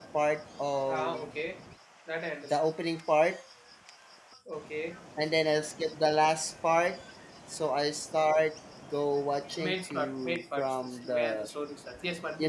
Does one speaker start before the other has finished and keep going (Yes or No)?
Yes